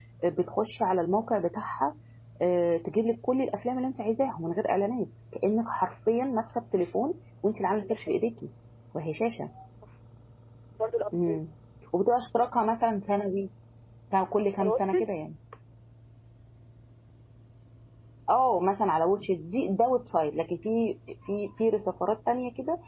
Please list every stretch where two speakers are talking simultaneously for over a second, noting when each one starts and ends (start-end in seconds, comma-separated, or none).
none